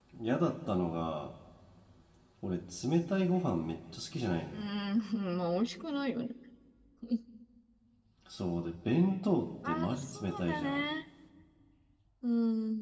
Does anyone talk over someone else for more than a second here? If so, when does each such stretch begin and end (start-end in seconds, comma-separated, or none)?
9.6-10.8